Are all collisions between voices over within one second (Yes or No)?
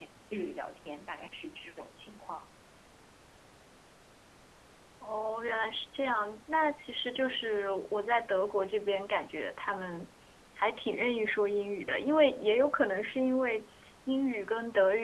Yes